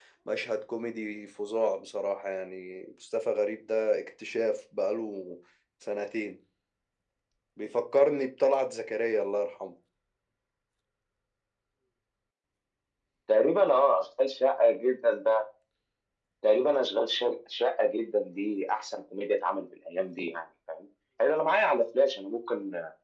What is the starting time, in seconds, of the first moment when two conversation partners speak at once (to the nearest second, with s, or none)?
none